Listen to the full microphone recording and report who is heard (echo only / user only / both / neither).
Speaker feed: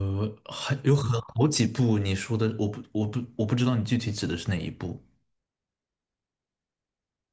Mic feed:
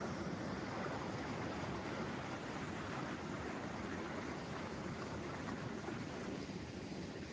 neither